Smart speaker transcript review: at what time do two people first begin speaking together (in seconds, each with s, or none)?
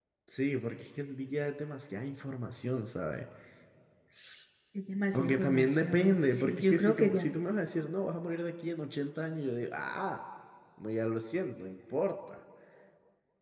5.1 s